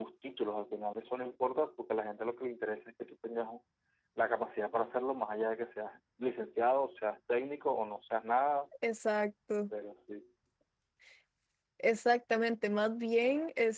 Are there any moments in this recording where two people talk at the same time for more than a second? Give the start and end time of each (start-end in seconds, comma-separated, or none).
none